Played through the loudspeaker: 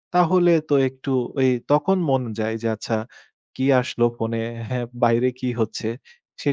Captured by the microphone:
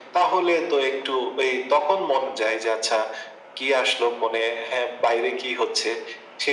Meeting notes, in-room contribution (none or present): none